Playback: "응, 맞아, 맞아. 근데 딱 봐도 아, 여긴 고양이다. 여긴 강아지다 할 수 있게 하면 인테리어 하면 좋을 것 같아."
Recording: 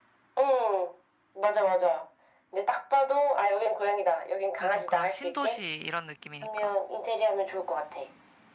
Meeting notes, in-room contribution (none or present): present